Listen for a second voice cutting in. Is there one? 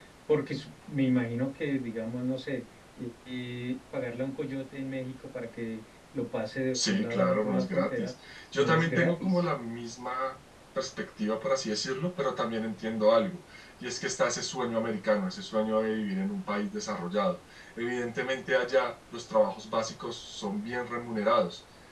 Yes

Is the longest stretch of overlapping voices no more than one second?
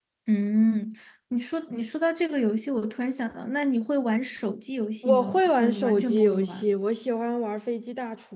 No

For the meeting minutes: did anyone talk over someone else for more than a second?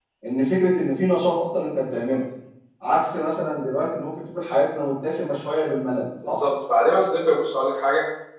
No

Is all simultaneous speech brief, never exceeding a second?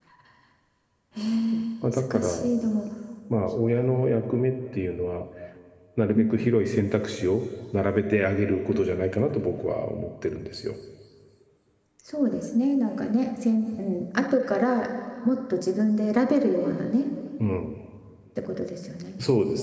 Yes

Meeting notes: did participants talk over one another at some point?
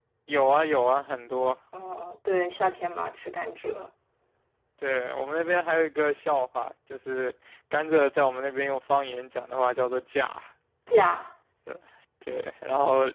No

